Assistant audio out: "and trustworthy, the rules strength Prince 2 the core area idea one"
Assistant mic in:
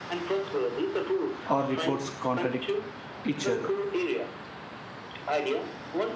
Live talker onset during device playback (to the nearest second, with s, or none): 1 s